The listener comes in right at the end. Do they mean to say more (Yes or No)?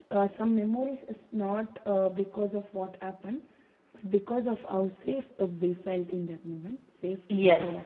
Yes